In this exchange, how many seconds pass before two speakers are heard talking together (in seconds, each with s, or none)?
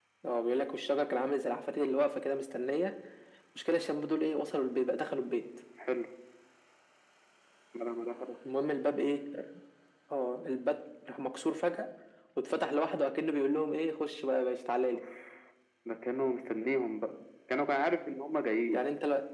none